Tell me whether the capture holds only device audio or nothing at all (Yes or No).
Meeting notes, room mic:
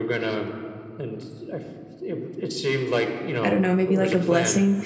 No